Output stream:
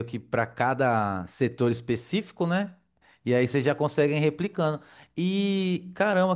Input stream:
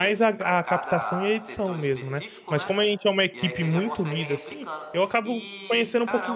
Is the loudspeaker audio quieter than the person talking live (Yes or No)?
Yes